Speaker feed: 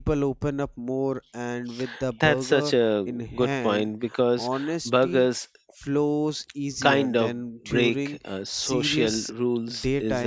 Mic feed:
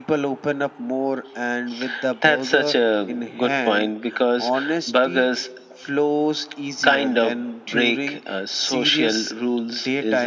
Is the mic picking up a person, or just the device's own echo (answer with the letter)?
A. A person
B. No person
B